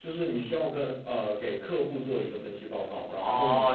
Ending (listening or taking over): taking over